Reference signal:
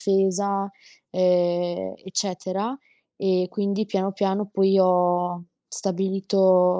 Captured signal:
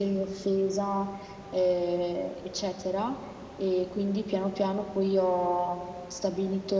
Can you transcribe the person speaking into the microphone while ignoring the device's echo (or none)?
none